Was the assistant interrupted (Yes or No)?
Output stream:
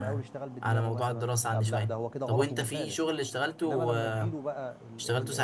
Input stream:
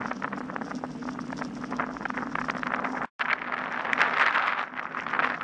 No